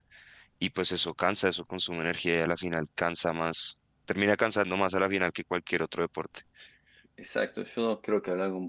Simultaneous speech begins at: none

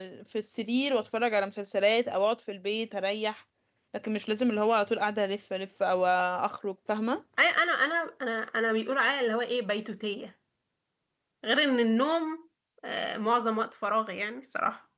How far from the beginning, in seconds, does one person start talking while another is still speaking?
none

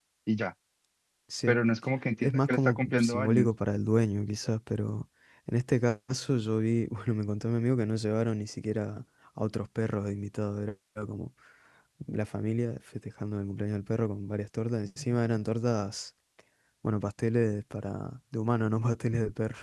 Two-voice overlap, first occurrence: 2.2 s

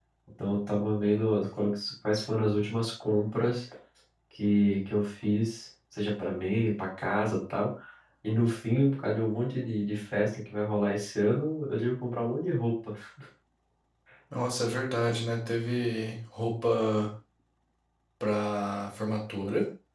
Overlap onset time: none

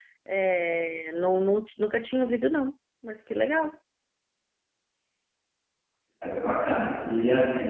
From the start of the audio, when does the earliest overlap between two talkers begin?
none

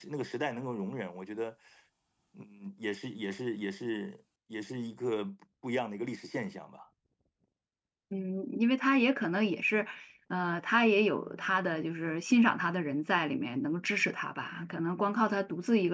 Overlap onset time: none

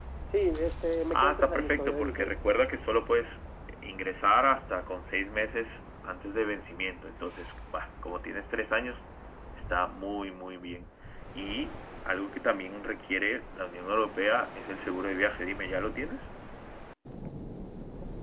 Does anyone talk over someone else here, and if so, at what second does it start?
1.1 s

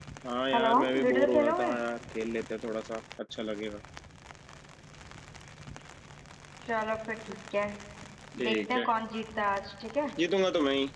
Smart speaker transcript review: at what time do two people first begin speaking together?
0.5 s

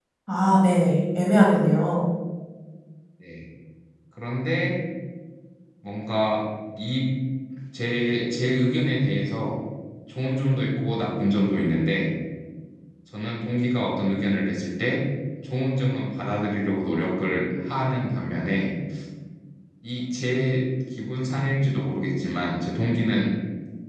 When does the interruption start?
none

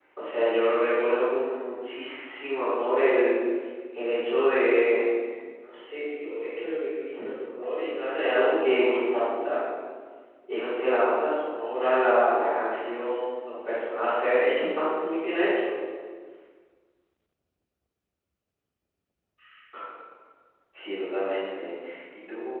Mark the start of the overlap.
none

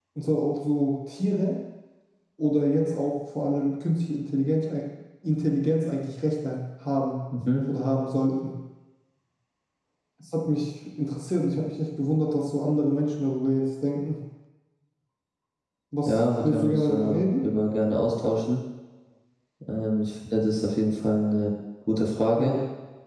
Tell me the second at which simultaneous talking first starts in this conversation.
16.1 s

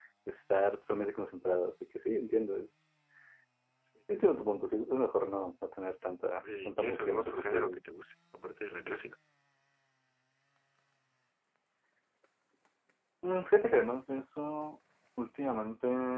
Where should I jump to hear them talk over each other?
6.4 s

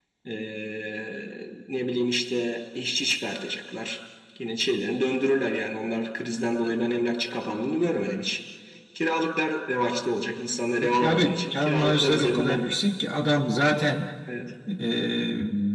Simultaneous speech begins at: 10.8 s

